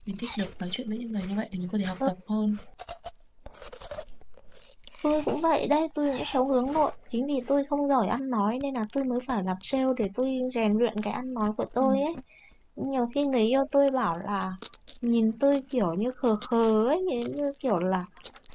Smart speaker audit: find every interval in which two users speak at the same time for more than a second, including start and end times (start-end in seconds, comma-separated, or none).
none